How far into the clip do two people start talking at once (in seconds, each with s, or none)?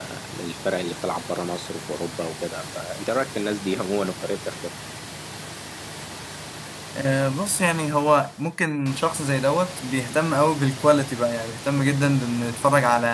none